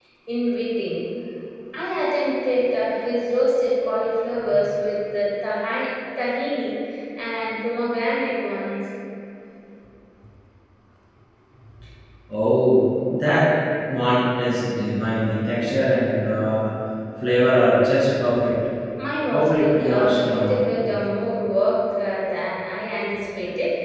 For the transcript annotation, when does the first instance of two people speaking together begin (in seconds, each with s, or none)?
19.3 s